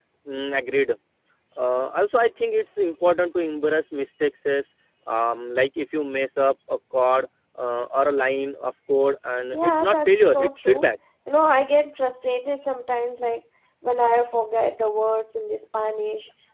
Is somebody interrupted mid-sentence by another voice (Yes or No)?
Yes